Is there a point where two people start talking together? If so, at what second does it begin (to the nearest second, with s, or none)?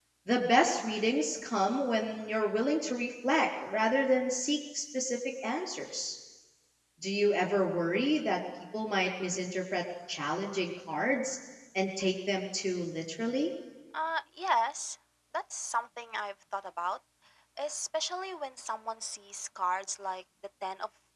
none